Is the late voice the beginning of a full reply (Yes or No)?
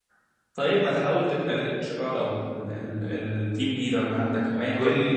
Yes